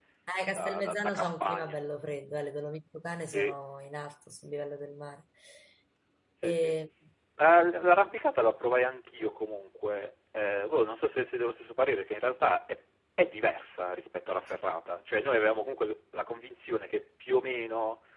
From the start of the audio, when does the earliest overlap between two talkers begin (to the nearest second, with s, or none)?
1 s